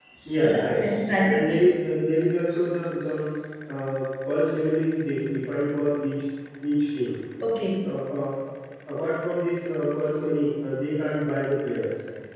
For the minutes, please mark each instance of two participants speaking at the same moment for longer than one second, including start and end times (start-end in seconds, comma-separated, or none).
none